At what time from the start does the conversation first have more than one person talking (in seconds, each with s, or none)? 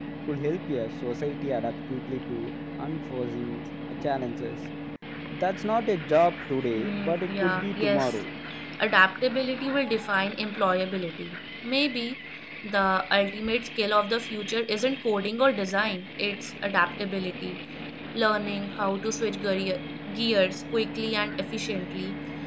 6.7 s